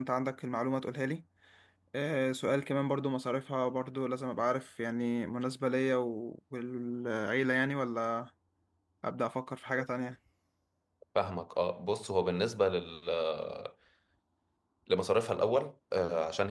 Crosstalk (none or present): none